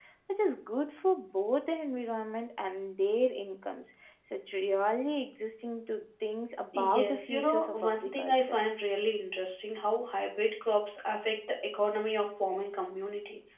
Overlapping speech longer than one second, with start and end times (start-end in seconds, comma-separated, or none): 6.7-8.6